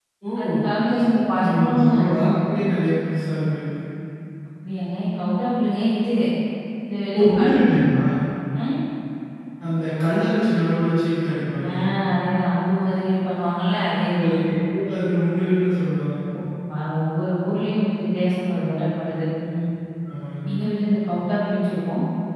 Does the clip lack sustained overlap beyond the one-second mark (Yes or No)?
No